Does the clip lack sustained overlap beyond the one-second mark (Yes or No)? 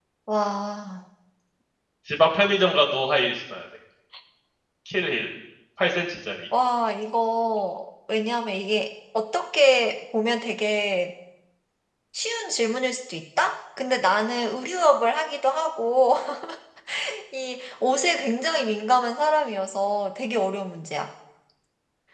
Yes